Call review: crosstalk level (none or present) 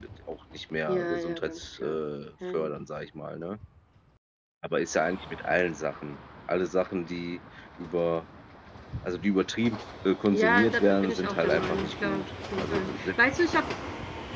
present